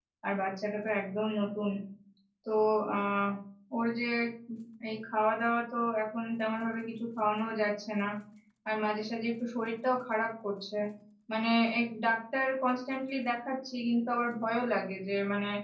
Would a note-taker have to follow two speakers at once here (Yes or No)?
No